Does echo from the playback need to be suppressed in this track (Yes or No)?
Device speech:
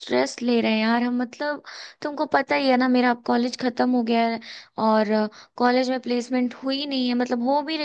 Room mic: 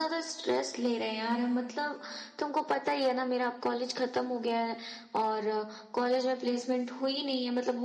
Yes